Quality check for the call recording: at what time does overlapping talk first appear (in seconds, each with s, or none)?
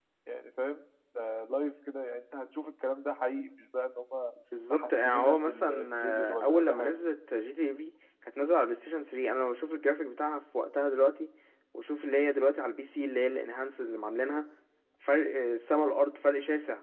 4.7 s